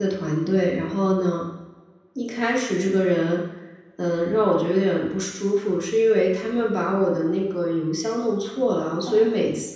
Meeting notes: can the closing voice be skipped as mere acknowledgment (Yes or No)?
Yes